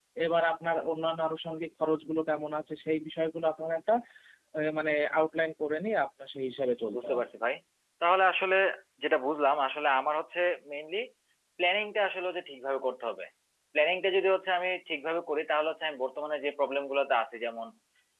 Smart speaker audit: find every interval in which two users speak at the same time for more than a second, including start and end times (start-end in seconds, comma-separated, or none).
none